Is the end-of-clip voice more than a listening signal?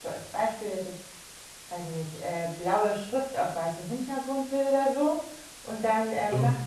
No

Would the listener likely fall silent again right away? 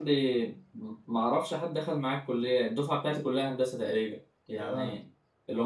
Yes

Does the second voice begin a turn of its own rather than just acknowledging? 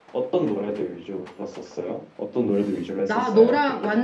Yes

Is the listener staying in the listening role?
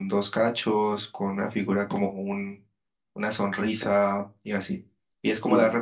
Yes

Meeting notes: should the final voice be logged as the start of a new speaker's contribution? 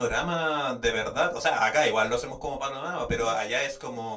No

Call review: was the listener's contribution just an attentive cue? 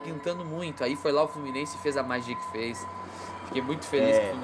Yes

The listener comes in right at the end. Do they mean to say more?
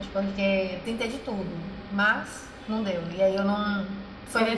Yes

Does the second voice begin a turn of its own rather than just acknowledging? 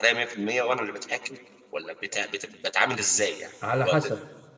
Yes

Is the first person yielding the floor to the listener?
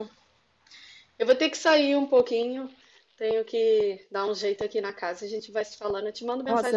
Yes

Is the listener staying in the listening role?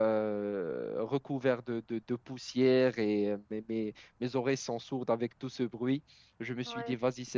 Yes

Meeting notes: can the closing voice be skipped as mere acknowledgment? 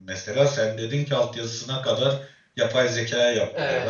No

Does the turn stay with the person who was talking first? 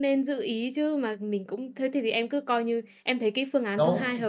No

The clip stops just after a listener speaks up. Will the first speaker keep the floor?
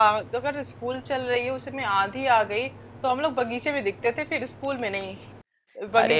Yes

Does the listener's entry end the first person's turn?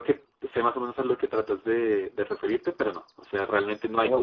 Yes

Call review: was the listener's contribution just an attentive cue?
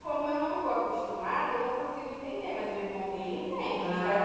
No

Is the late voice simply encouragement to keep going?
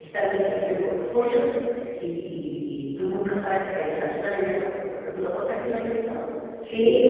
No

